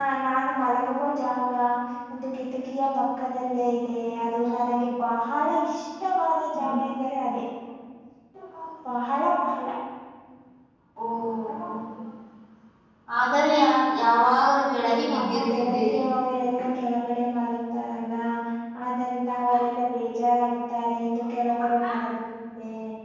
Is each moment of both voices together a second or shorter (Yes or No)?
No